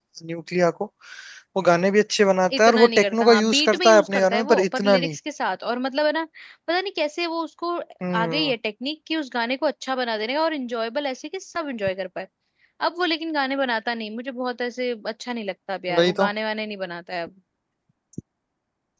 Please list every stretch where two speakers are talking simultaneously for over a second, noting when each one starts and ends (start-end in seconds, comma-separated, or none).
2.6-5.2